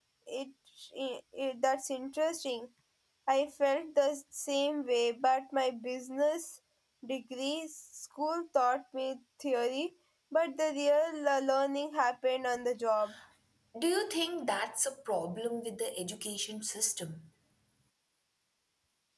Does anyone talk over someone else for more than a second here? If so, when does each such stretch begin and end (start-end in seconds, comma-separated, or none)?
none